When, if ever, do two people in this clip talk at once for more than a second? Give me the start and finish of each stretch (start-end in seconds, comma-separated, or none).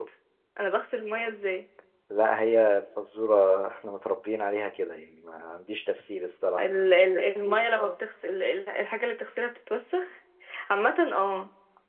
none